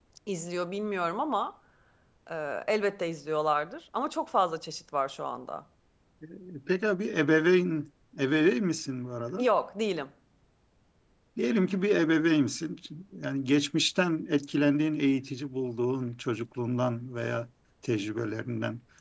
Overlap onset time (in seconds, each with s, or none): none